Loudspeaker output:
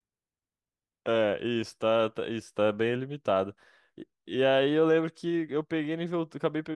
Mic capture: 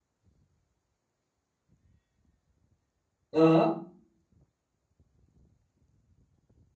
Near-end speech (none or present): present